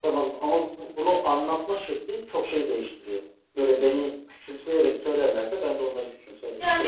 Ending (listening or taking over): taking over